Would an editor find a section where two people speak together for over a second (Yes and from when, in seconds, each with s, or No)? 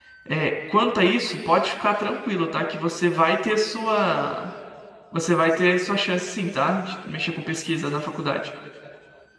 No